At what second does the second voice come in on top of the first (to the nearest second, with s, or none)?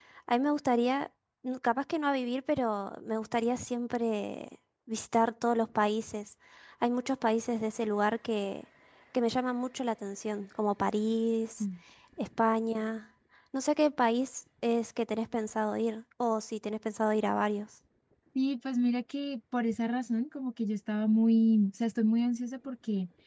none